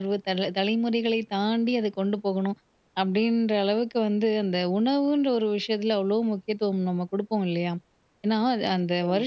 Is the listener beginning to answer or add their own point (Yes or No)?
No